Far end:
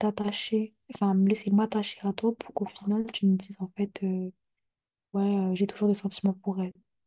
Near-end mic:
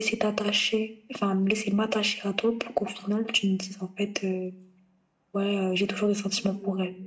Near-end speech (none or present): present